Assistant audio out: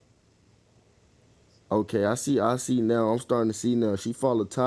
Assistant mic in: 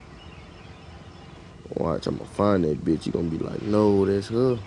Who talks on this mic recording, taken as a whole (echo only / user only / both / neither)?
user only